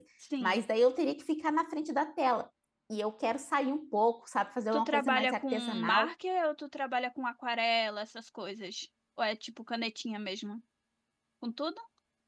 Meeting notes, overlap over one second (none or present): present